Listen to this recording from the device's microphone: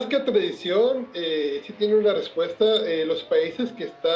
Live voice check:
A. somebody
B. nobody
B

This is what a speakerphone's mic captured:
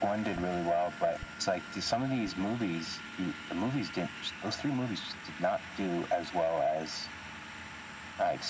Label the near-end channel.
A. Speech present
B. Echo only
B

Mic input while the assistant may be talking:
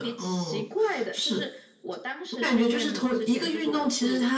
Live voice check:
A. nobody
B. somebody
A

